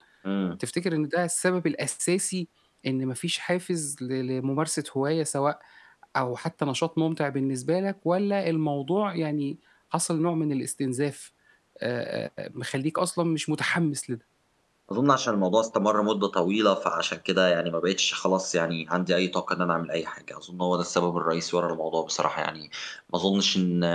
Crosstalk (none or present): none